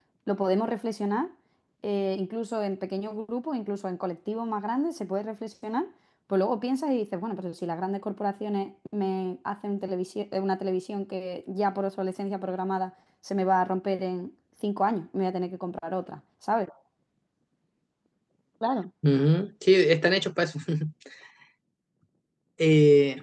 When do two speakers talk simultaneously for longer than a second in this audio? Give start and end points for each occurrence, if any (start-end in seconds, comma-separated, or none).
none